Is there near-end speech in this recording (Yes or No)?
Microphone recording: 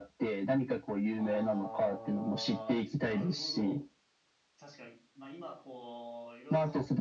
Yes